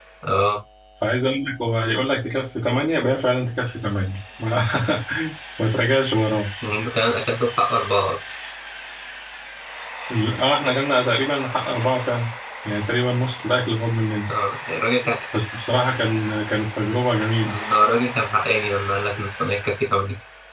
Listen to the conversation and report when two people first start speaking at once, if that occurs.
none

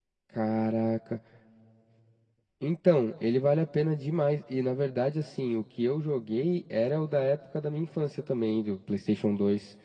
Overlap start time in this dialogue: none

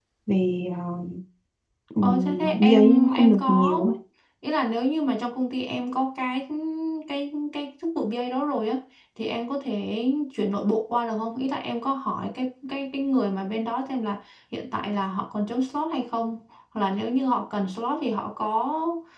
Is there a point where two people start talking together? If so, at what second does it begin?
2.0 s

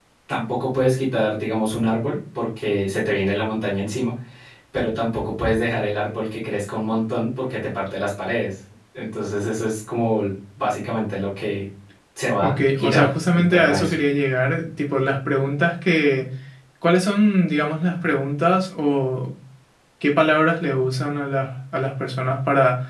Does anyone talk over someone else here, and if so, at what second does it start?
12.4 s

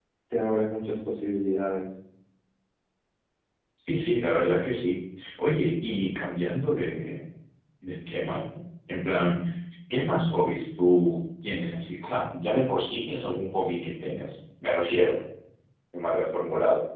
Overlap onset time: none

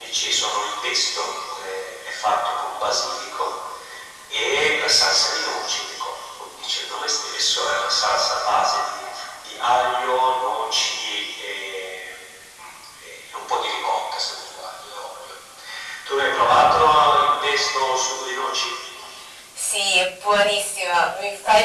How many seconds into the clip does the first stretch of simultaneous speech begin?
none

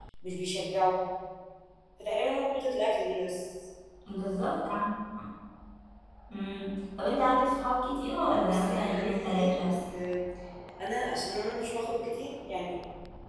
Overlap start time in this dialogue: 8.4 s

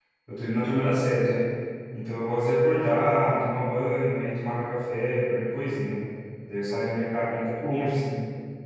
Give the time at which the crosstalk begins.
none

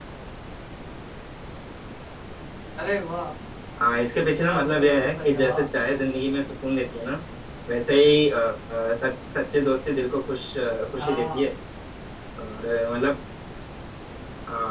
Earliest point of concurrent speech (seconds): 4.3 s

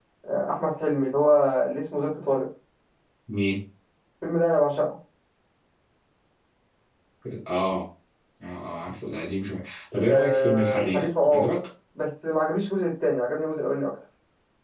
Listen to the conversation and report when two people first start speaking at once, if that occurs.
10.0 s

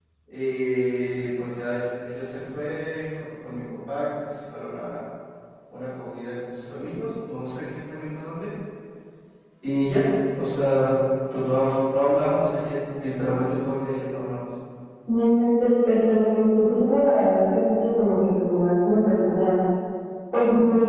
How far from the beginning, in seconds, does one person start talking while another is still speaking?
none

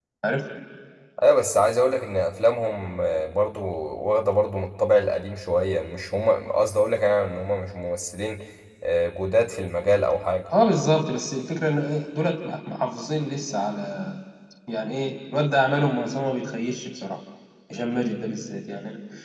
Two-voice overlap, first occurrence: none

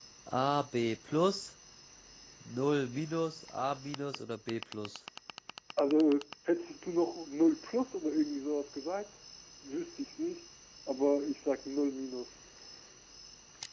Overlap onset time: none

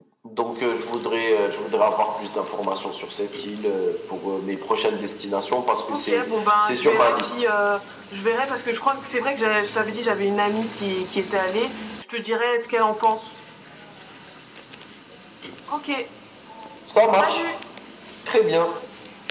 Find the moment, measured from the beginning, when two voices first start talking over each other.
5.9 s

